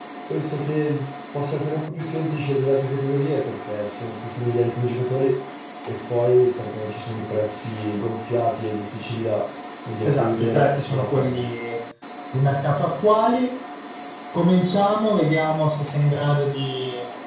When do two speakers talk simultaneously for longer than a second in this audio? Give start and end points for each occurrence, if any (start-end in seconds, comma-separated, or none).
10.0-11.4